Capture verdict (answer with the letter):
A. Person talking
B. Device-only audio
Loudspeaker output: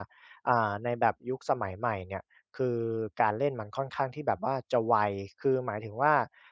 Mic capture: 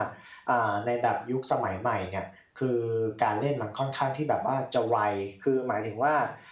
B